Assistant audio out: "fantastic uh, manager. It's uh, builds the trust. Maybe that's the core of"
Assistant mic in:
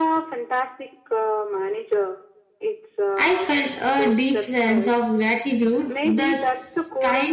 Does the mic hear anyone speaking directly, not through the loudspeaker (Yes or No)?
Yes